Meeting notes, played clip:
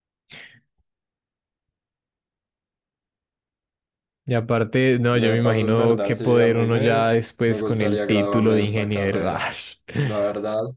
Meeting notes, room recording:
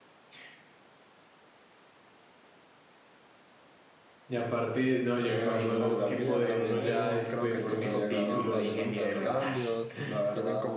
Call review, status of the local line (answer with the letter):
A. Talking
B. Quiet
A